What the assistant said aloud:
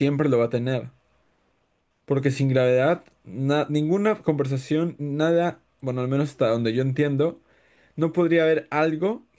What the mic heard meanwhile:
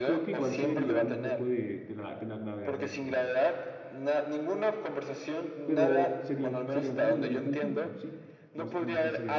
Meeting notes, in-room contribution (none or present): present